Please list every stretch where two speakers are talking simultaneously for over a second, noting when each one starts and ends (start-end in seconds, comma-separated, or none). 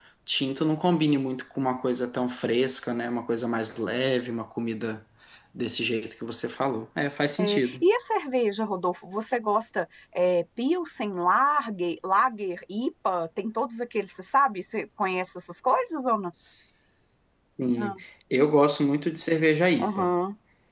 none